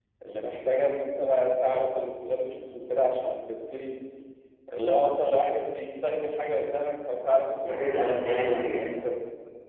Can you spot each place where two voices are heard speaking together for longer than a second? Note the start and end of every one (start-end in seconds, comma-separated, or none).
7.6-9.1